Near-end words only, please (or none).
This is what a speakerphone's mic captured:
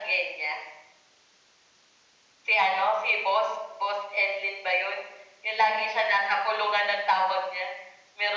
none